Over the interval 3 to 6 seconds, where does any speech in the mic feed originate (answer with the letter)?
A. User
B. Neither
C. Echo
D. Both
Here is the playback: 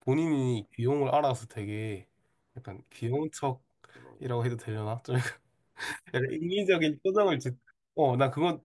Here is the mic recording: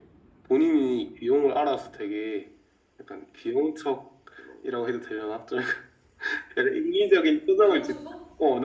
C